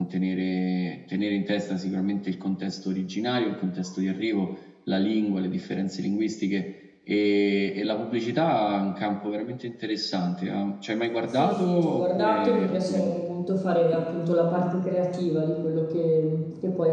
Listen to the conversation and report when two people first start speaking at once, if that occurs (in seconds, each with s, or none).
11.2 s